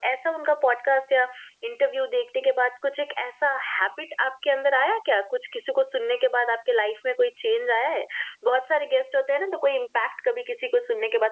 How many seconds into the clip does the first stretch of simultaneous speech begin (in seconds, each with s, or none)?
none